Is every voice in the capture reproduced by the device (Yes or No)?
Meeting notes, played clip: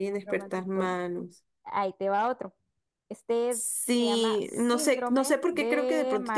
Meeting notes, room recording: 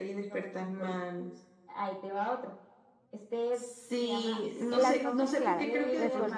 No